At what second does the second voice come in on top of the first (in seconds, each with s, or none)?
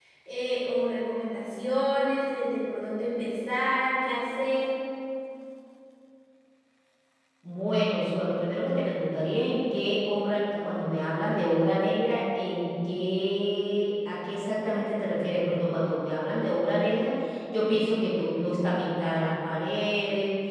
none